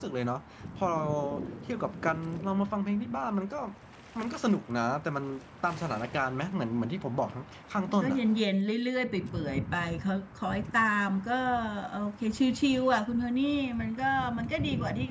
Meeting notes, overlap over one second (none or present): none